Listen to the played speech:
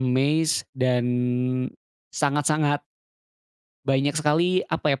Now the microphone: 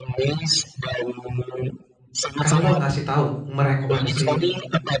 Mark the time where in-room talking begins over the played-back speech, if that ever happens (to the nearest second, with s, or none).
2 s